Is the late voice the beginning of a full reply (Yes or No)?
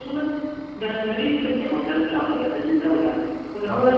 No